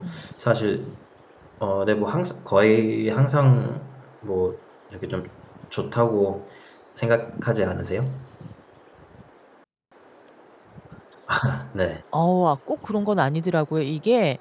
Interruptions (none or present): none